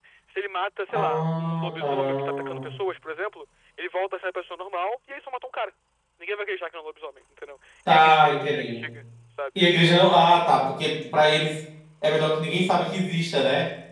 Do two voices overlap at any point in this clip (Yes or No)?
Yes